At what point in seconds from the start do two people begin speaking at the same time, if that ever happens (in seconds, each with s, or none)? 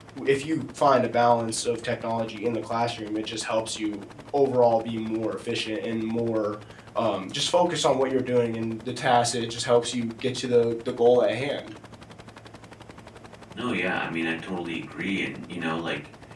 none